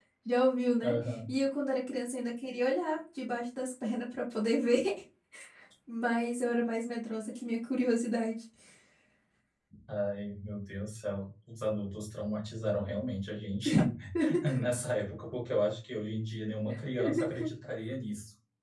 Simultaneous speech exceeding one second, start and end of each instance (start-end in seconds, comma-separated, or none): none